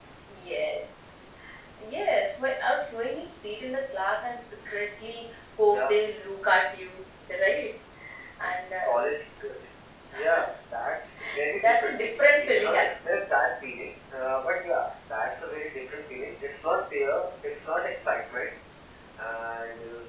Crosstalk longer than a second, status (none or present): present